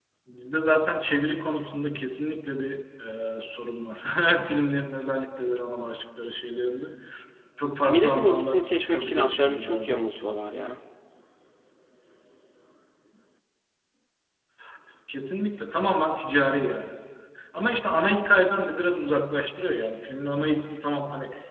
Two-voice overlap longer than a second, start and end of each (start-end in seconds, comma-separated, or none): 7.9-9.9